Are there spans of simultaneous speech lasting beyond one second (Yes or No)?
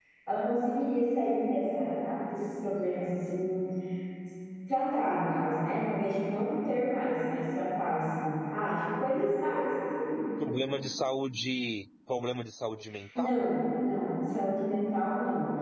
No